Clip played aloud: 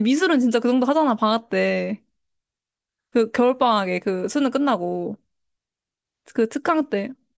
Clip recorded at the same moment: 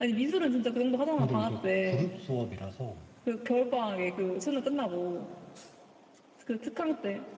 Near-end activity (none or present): present